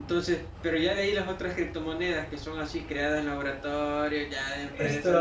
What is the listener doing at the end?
taking over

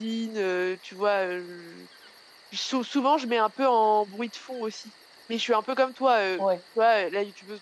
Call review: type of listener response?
listening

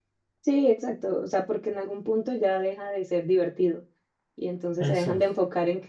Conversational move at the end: listening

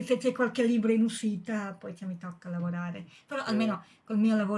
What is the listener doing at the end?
listening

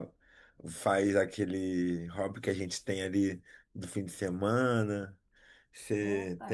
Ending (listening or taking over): listening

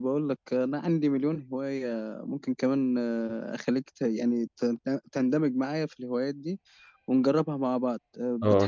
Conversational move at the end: taking over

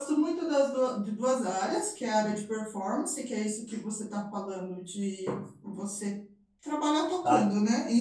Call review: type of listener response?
listening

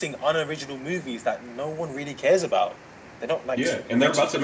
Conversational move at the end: taking over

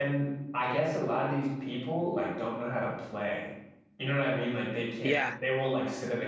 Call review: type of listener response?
listening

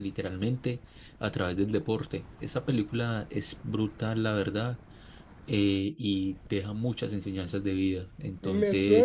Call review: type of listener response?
taking over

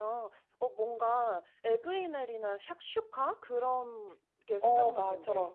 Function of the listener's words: taking over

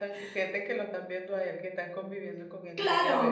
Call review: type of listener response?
taking over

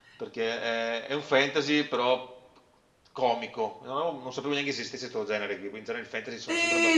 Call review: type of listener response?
taking over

